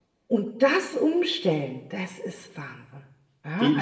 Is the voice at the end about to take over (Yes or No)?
Yes